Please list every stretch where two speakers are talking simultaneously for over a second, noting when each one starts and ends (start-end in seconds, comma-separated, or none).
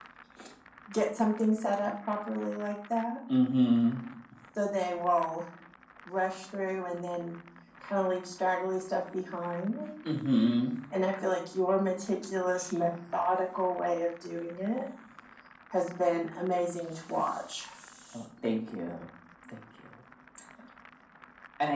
none